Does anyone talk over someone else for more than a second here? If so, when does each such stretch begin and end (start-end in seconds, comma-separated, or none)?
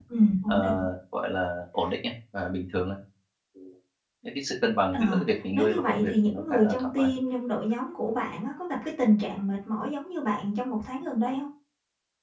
5.5-7.1